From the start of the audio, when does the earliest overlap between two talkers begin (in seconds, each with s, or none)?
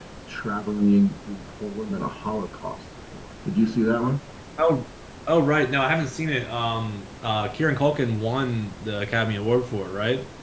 none